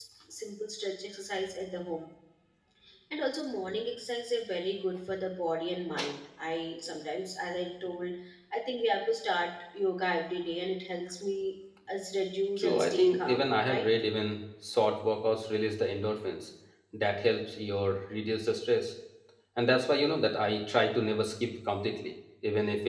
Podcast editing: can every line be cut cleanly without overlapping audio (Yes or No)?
No